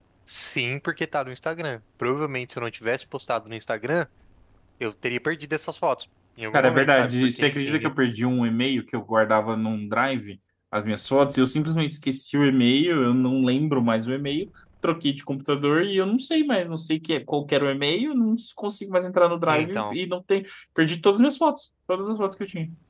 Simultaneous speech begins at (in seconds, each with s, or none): 6.5 s